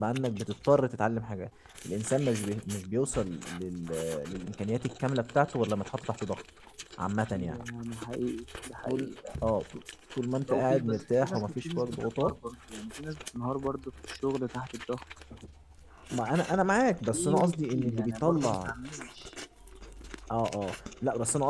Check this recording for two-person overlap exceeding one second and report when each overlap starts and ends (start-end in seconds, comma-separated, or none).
10.5-12.3, 17.1-18.7